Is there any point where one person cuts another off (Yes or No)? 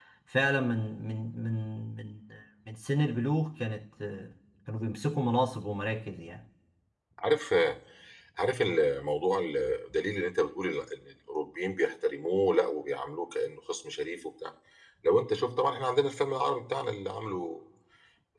No